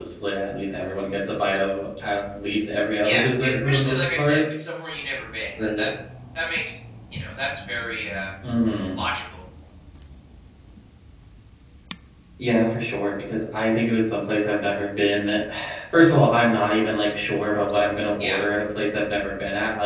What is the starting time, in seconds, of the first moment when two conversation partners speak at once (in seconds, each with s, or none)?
3.0 s